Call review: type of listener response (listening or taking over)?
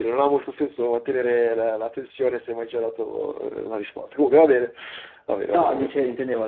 taking over